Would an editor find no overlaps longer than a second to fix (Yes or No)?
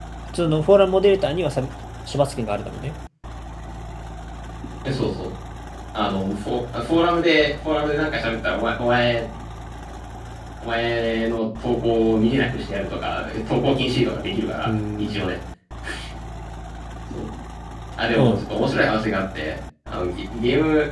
Yes